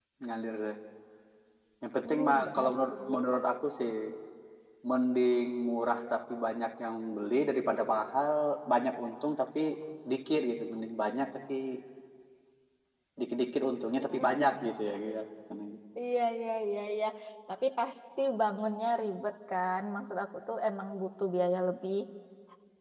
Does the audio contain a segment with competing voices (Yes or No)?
Yes